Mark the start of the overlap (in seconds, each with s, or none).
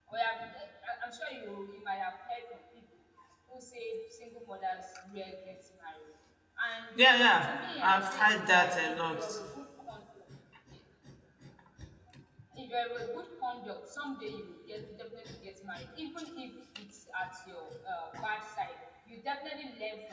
7.8 s